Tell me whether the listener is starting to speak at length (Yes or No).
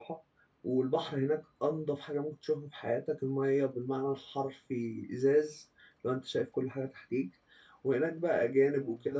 No